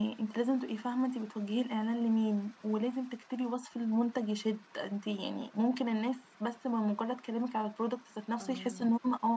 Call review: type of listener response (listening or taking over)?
listening